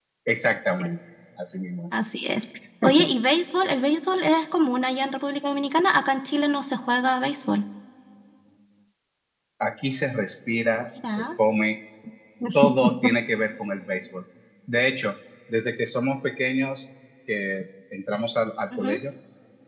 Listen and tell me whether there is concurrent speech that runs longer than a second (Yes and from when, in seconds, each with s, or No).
No